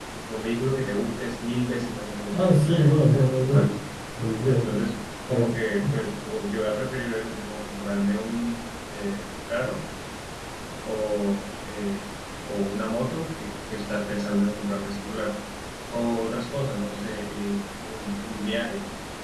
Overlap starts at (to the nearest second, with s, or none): 2 s